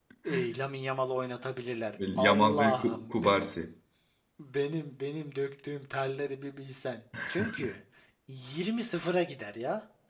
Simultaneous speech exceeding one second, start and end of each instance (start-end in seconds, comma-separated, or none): 2.2-3.5